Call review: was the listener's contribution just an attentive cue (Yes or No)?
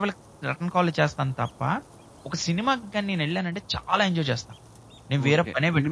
No